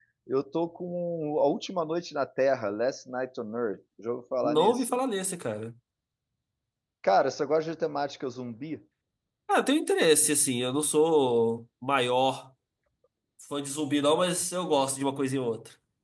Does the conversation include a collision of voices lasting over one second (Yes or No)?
No